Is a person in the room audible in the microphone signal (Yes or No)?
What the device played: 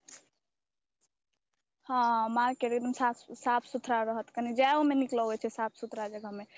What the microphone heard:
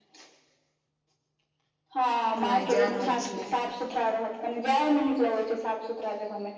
Yes